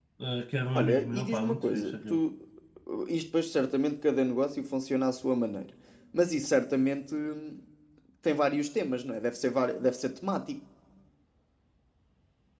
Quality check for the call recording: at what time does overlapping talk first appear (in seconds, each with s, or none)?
0.8 s